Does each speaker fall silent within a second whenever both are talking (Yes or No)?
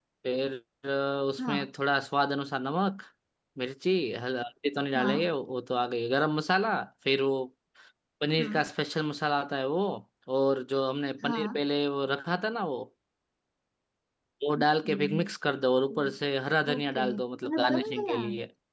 No